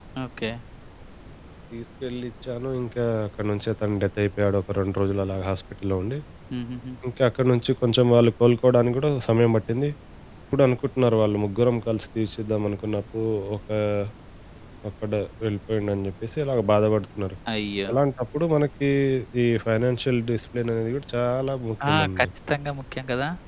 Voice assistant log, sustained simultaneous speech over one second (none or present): none